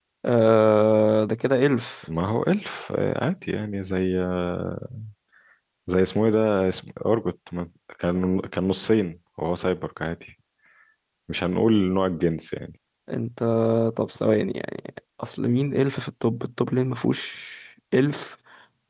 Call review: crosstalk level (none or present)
none